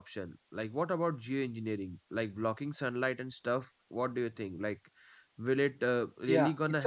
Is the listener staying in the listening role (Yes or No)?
No